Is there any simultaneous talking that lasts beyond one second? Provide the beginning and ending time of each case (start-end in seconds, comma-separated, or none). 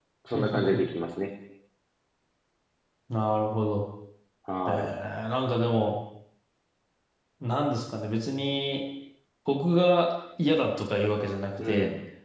none